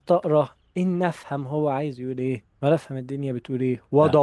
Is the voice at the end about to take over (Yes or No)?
No